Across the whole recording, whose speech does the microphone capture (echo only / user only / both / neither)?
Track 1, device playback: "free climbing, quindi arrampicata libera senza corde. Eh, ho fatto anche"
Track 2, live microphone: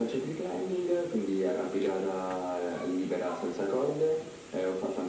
echo only